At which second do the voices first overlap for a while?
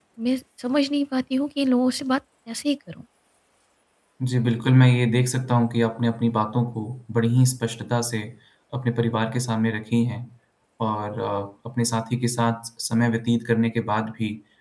none

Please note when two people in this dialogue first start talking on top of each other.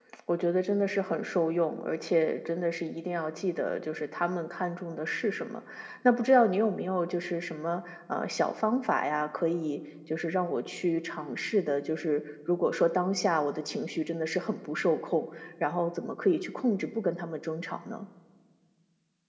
none

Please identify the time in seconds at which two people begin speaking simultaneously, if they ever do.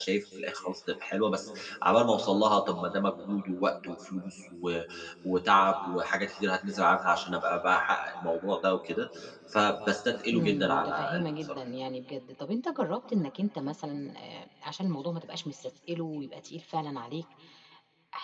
10.3 s

